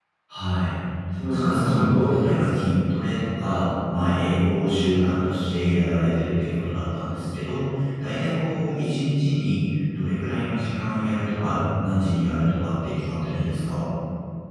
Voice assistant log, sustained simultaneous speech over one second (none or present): present